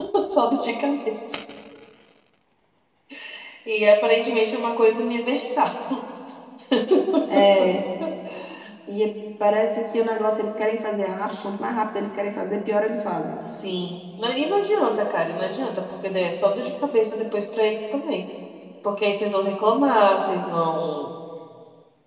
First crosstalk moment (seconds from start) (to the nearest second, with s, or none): none